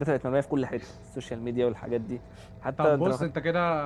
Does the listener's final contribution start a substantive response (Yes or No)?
Yes